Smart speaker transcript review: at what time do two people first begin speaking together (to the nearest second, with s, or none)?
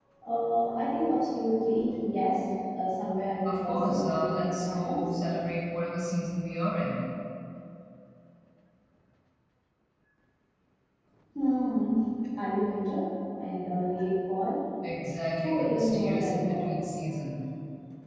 3 s